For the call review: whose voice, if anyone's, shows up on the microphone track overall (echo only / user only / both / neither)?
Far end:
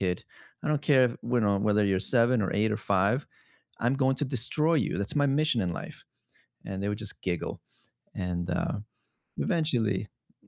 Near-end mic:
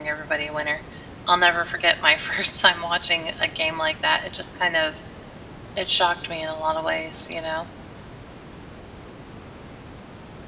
user only